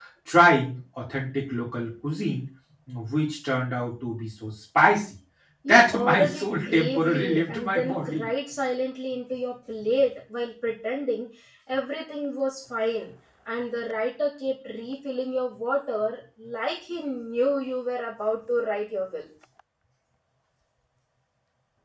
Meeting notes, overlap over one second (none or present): present